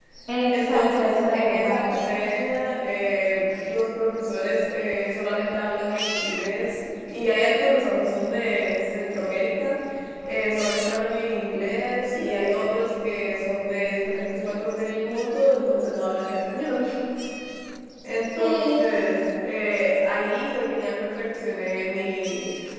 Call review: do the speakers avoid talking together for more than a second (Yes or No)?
No